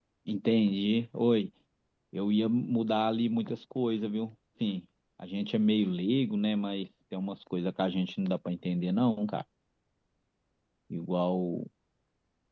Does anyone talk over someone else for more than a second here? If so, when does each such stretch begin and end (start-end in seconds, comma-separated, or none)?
none